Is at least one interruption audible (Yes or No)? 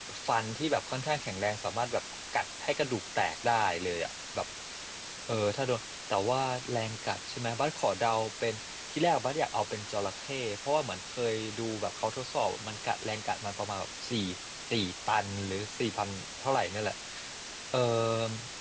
No